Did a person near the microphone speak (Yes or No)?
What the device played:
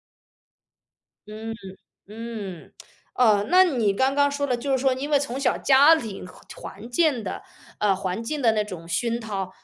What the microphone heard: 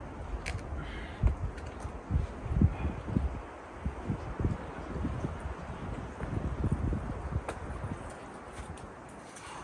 No